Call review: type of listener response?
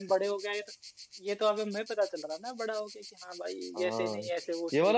taking over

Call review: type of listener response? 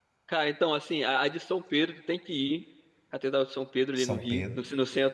listening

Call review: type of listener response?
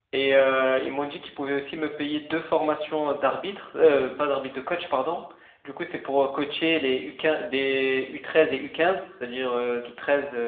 listening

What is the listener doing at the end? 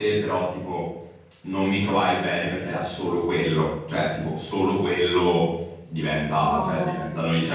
listening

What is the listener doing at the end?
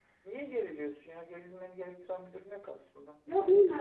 taking over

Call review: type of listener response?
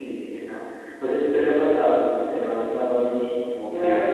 taking over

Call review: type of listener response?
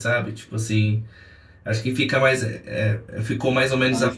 listening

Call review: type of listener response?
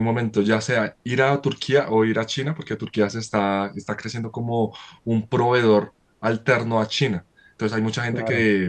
listening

